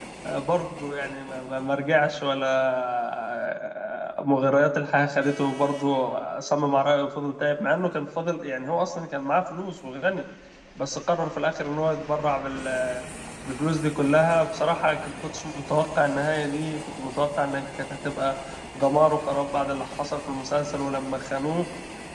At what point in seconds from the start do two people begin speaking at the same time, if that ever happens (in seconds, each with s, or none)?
none